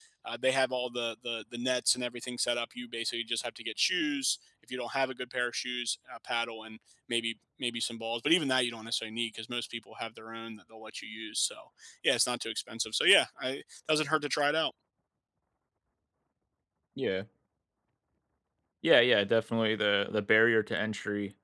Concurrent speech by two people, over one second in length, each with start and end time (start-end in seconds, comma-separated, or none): none